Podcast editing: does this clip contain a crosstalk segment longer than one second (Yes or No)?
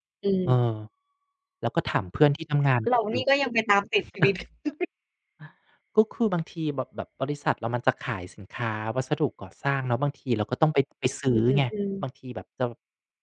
No